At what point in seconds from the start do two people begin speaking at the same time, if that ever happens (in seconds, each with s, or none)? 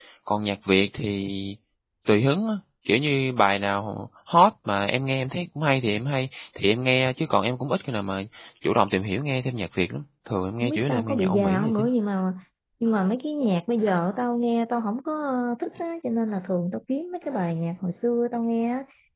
10.6 s